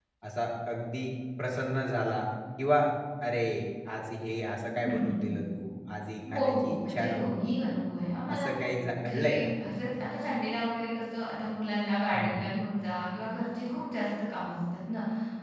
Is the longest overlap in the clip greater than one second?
Yes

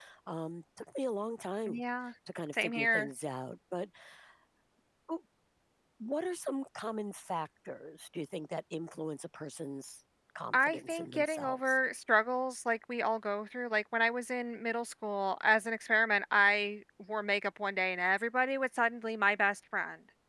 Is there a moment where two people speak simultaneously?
Yes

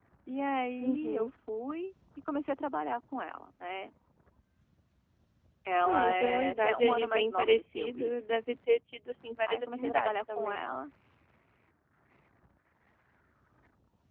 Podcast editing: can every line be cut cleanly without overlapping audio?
No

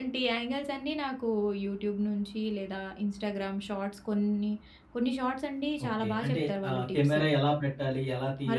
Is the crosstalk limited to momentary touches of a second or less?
No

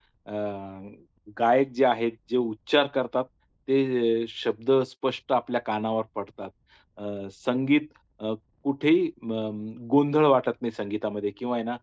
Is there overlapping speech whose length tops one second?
No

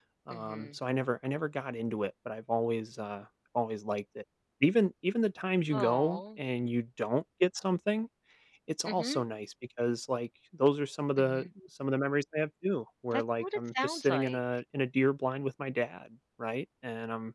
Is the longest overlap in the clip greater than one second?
Yes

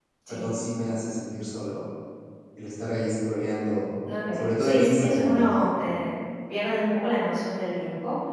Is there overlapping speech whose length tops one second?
Yes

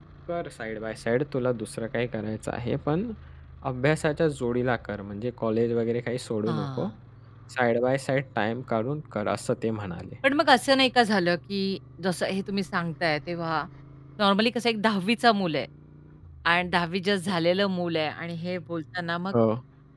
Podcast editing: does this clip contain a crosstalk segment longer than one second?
No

